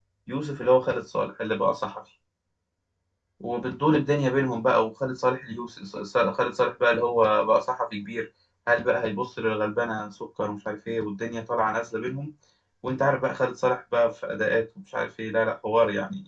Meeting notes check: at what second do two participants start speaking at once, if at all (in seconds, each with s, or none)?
none